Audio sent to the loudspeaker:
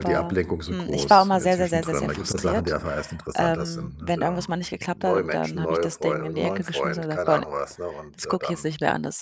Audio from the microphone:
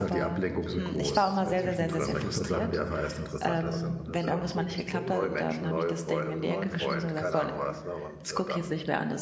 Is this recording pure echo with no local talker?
No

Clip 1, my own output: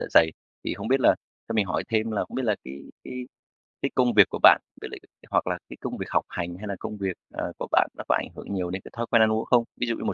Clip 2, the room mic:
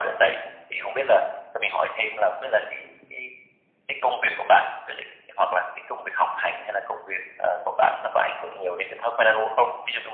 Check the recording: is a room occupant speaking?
No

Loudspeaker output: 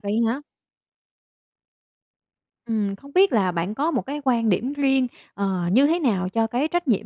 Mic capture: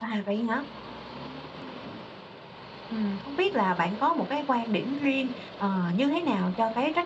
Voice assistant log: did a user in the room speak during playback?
No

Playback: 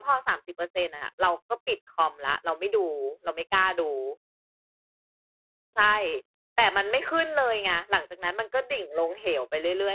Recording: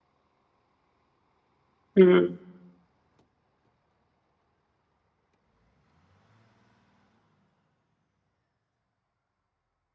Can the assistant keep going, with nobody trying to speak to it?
No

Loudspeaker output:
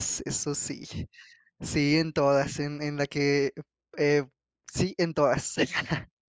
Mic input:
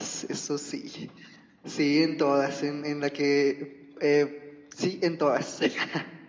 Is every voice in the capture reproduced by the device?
Yes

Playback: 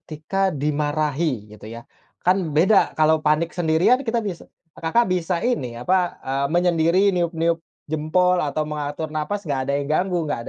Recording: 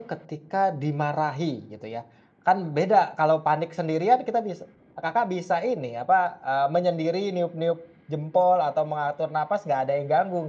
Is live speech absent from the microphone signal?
Yes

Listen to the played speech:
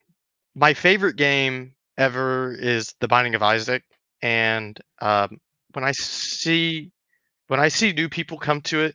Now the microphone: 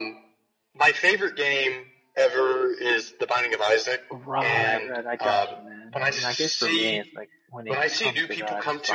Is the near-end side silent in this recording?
No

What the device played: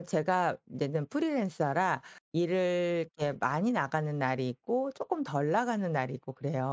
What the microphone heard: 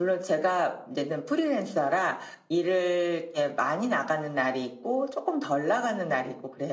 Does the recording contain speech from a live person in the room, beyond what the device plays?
No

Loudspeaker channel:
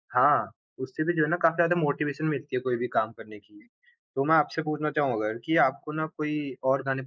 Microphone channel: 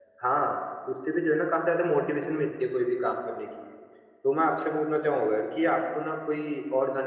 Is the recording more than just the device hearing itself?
No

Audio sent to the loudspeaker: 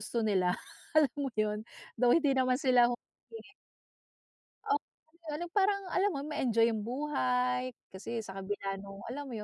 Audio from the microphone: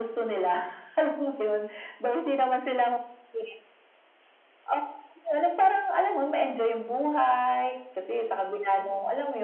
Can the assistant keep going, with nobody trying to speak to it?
Yes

